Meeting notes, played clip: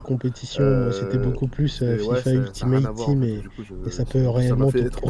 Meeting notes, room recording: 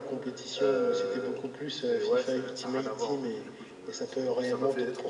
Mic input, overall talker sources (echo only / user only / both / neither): echo only